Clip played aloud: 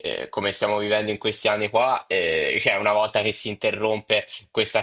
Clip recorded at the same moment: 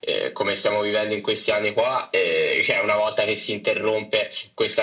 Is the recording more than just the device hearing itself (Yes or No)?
No